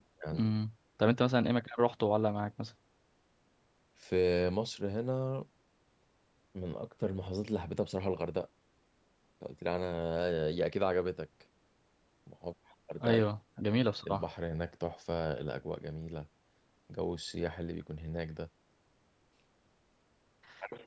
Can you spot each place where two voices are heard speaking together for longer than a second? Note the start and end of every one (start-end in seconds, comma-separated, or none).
none